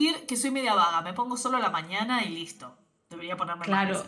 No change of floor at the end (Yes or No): No